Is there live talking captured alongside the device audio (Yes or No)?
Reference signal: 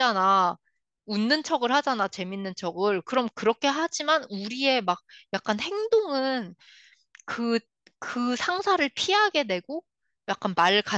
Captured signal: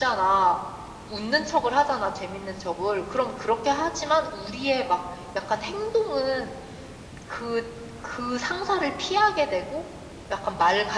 No